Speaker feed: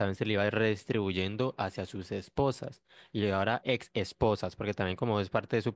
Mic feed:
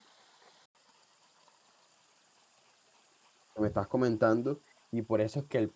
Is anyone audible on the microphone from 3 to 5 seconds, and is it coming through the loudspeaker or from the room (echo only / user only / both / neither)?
user only